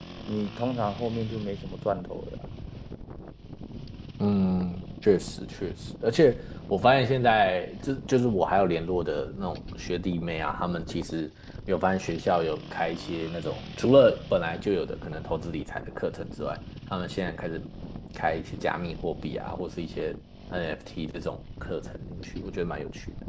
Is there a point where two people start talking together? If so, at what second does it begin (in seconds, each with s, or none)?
none